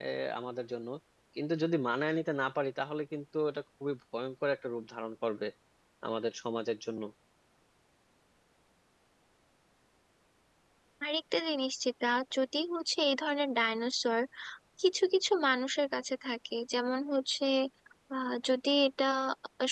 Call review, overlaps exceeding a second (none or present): none